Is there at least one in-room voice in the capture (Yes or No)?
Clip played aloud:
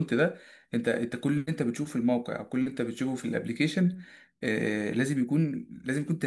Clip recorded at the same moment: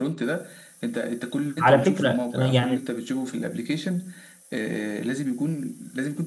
Yes